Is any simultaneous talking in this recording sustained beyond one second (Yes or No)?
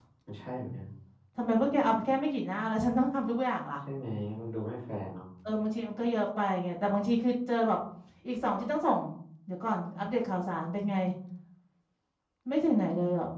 No